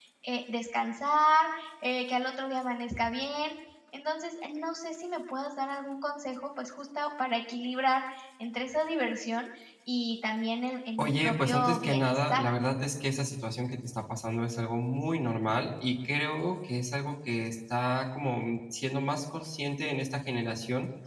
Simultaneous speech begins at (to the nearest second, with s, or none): 11 s